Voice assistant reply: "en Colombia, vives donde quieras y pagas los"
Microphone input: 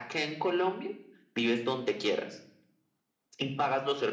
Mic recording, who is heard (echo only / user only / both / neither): echo only